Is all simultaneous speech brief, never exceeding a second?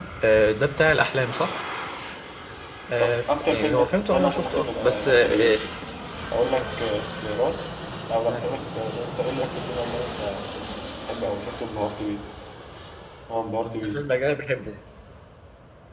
No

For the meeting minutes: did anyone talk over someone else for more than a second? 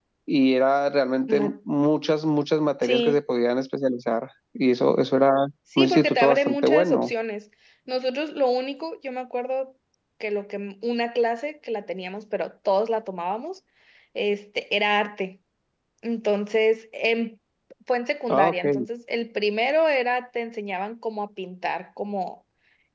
Yes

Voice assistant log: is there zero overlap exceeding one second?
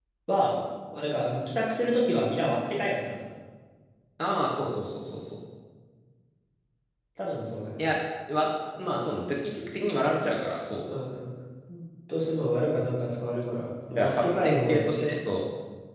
No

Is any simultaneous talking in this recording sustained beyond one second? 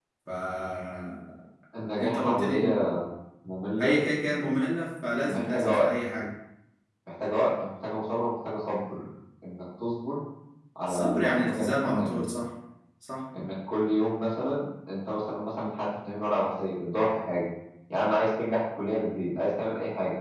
Yes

